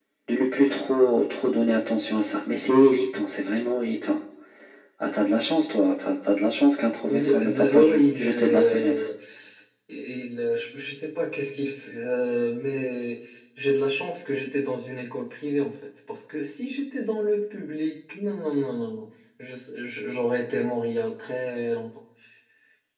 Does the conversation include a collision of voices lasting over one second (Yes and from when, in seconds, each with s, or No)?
Yes, from 7.1 s